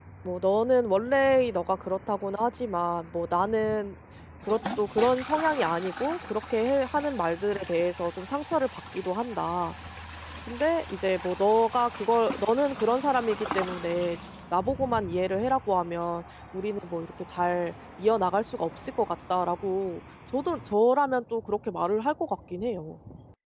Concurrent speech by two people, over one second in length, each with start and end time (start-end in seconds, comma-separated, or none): none